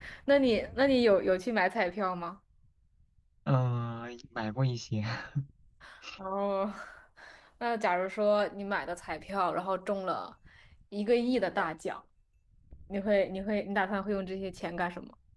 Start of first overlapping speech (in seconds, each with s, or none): none